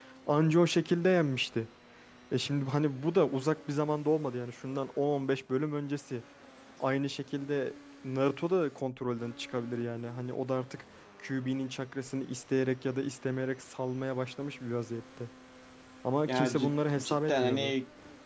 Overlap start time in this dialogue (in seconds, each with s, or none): 16.3 s